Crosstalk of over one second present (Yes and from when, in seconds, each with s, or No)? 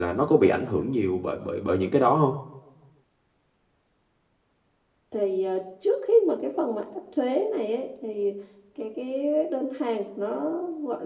No